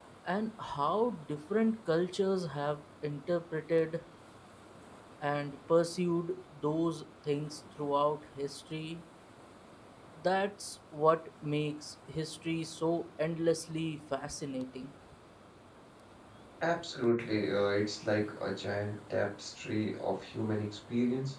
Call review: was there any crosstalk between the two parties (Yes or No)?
No